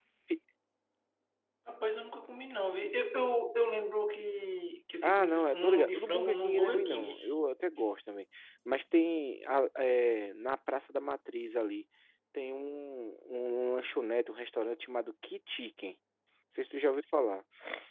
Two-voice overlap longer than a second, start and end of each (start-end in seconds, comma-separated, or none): 5.0-7.2